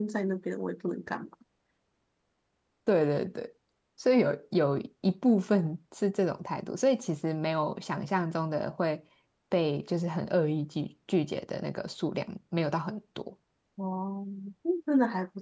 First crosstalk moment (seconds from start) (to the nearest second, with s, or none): none